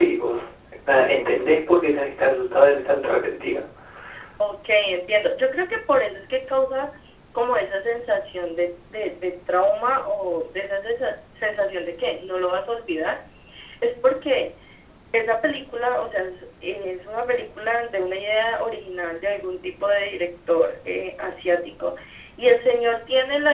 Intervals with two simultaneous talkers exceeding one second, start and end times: none

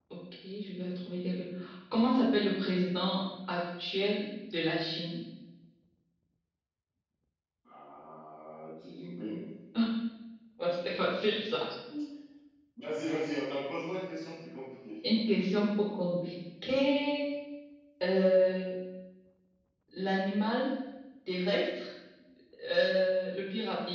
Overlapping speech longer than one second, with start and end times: none

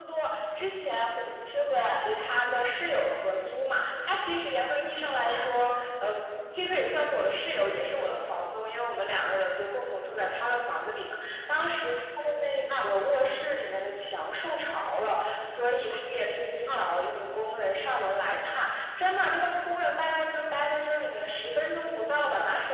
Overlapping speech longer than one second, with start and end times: none

